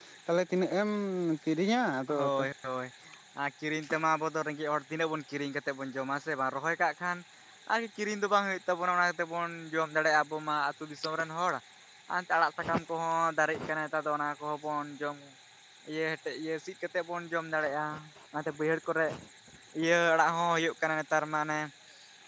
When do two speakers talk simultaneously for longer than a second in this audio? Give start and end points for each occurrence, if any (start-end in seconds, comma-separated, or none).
none